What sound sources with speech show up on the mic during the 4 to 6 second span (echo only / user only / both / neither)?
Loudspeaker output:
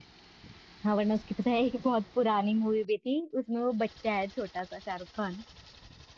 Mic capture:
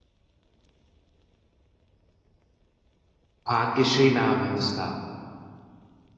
user only